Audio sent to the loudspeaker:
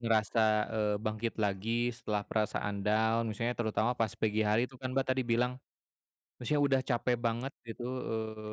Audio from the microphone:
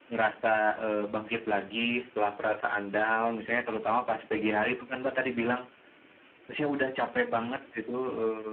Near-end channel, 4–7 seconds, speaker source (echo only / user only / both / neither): echo only